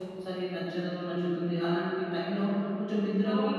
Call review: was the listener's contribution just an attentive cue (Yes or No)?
No